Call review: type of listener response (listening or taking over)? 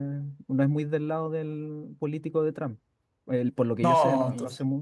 taking over